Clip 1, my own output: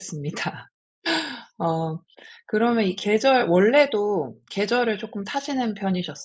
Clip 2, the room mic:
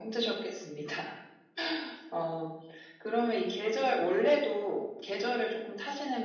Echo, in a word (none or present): present